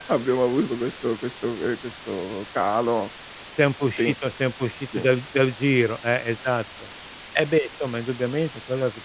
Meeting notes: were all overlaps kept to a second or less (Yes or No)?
Yes